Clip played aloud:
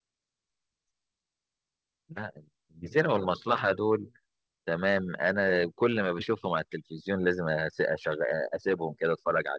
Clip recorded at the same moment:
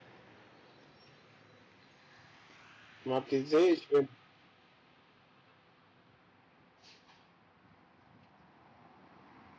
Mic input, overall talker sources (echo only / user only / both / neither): user only